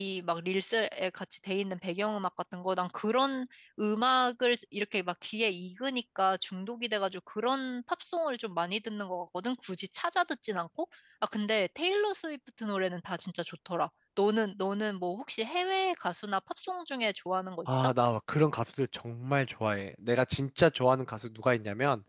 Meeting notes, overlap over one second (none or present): none